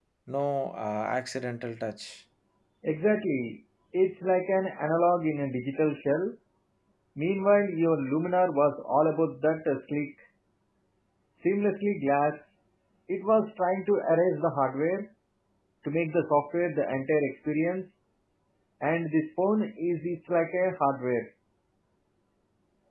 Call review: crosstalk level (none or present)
none